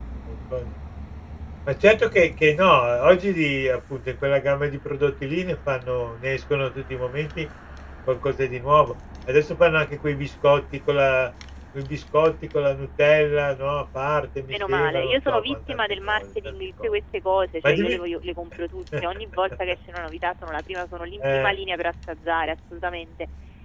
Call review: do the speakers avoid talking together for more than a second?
No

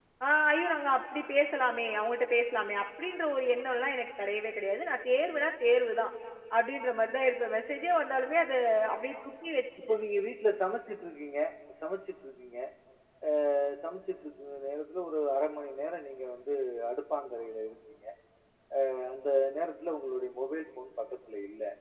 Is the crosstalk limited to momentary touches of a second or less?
Yes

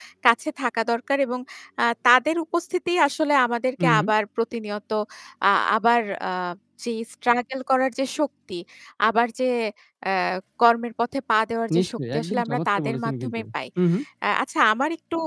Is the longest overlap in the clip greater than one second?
Yes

